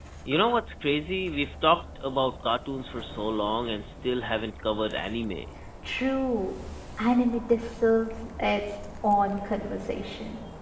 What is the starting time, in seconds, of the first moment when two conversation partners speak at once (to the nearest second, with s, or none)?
none